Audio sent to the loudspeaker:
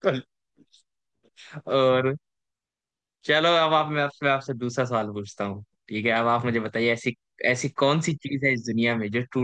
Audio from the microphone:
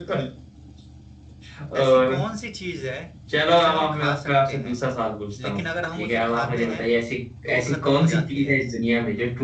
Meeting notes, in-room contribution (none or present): present